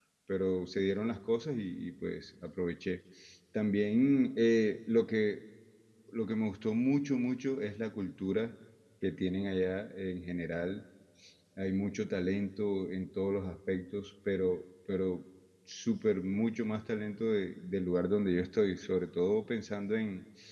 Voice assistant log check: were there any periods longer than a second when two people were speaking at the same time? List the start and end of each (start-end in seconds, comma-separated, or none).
none